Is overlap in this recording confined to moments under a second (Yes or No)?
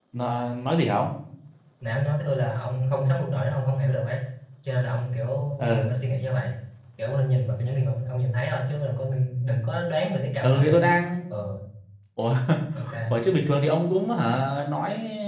Yes